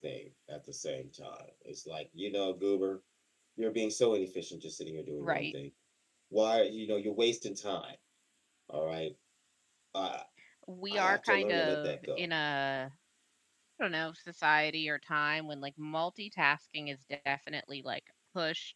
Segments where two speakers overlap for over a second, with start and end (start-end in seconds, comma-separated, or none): 10.9-12.3